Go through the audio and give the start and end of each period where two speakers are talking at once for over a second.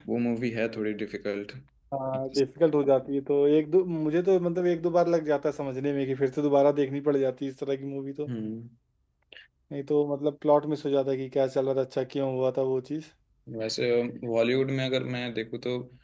none

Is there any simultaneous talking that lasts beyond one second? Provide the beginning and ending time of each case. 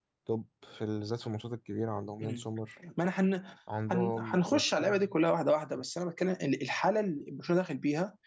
3.9-5.1

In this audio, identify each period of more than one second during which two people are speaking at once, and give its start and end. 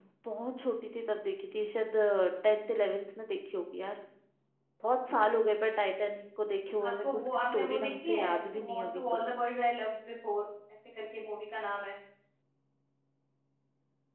6.9-9.0

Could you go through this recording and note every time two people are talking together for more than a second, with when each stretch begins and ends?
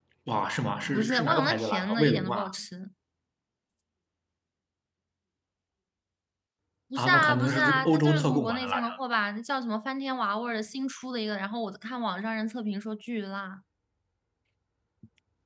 0.9-2.5, 7.0-9.0

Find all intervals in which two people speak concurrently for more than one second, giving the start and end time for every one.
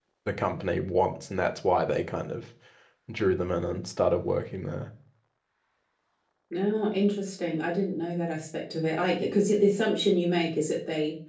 none

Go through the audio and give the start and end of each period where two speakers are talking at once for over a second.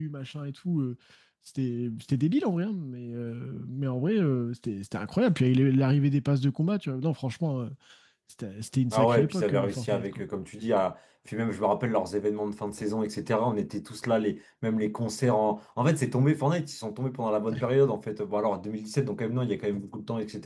8.9-10.2

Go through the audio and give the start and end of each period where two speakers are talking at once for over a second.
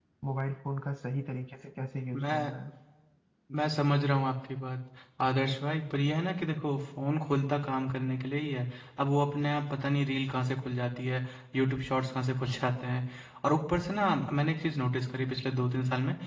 none

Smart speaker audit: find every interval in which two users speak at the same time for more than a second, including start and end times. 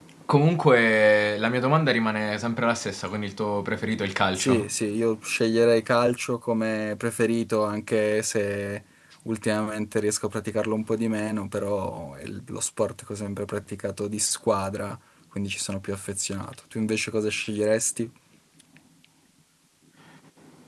none

